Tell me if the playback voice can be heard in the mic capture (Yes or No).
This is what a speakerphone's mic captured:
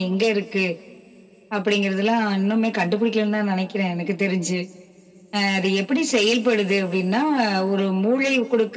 Yes